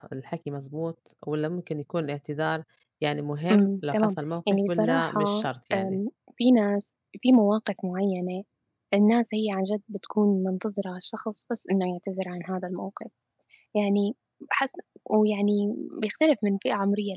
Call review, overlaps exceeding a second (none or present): present